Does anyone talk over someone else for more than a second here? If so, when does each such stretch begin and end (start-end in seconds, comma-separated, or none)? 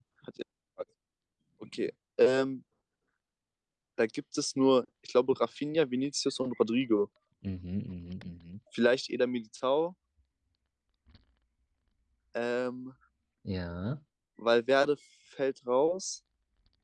none